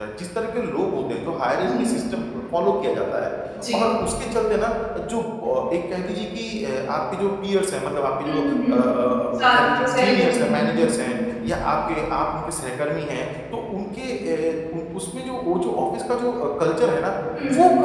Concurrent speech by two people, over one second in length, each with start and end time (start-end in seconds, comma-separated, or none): 9.4-11.1